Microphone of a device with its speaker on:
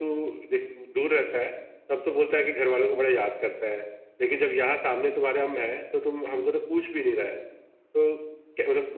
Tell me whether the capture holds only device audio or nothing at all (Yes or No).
Yes